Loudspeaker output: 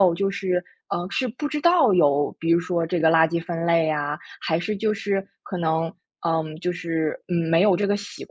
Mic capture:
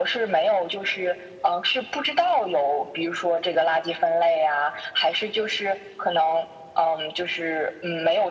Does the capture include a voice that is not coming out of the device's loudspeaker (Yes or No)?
No